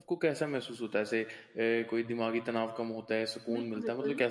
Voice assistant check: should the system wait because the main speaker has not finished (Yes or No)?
No